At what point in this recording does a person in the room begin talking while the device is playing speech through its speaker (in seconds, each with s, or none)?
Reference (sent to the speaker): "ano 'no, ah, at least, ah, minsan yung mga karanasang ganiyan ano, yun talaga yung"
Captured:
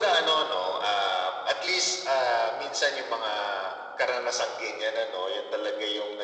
none